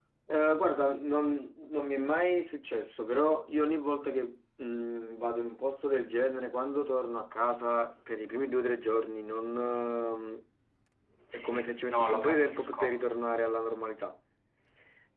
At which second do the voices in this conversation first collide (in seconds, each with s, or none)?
11.3 s